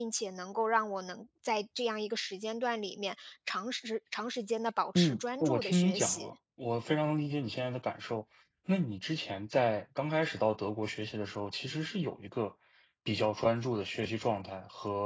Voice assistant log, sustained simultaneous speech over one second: present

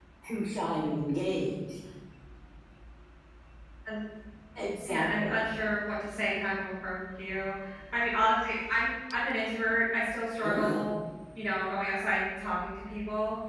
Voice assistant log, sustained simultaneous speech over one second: none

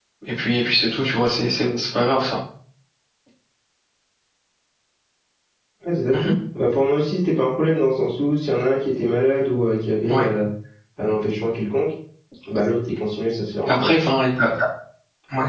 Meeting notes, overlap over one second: none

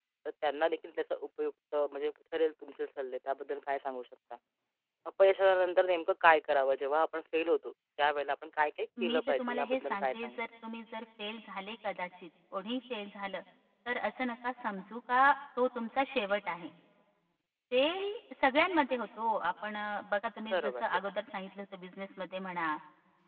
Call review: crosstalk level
present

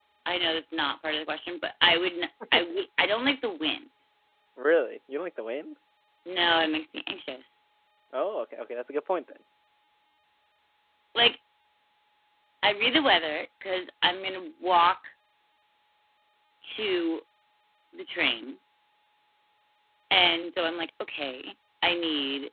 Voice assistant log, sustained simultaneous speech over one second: none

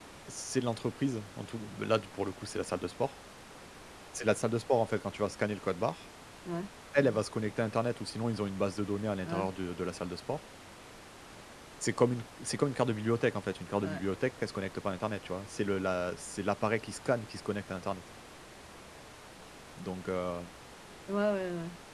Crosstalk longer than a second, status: none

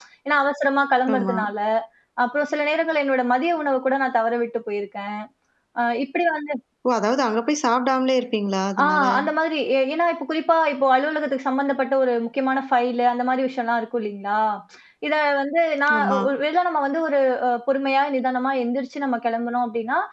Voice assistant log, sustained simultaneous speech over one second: none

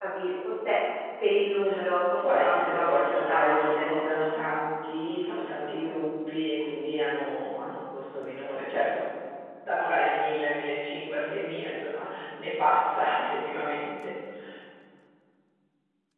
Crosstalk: present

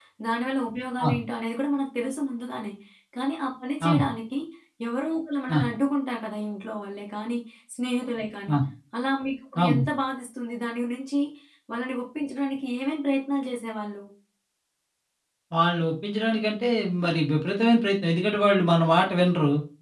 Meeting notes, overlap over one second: none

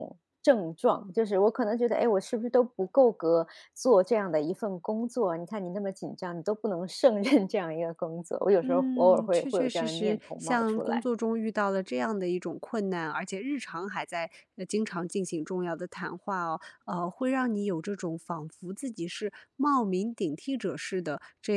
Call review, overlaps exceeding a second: present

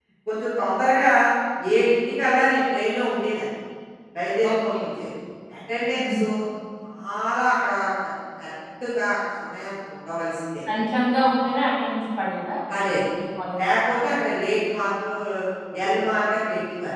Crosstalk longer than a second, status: none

